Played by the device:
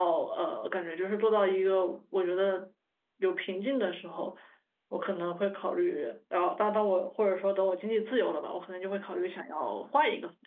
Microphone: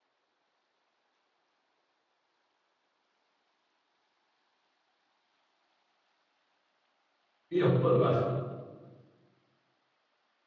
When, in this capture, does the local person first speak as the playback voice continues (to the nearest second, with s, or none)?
7 s